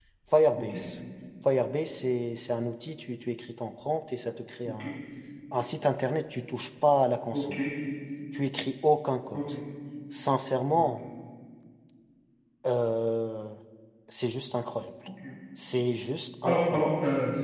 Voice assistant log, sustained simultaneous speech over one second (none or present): none